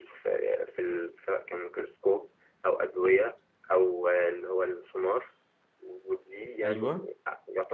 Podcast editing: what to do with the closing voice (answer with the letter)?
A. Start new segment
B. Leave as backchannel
B